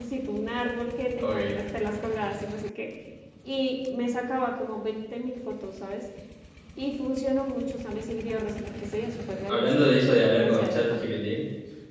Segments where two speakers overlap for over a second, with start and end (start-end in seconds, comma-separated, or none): 9.5-11.0